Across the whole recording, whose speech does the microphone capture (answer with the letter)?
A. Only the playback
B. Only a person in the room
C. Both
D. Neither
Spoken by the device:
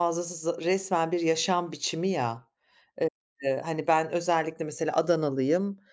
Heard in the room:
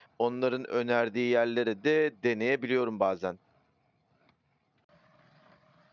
B